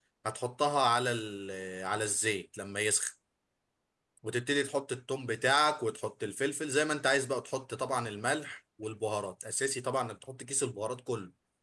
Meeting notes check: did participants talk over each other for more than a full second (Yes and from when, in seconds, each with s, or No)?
No